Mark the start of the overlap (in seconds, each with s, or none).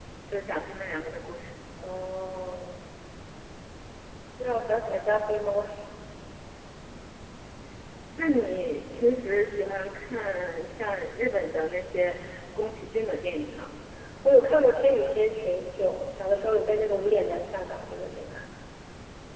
none